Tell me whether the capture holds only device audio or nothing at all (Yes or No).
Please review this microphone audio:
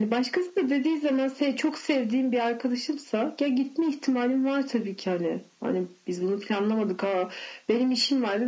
Yes